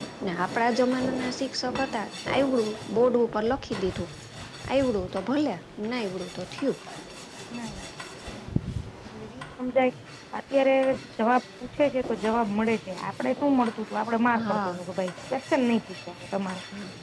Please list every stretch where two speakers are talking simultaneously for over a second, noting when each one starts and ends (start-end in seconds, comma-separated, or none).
none